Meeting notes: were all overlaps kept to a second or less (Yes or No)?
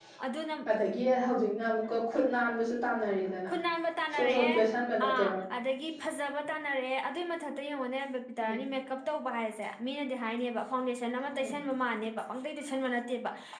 Yes